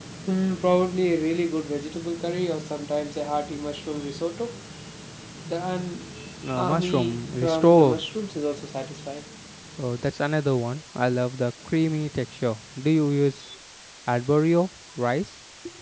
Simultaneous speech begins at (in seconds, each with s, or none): 6.4 s